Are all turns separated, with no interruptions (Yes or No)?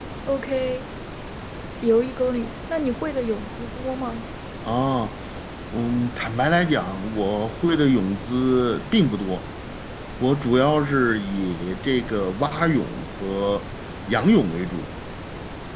Yes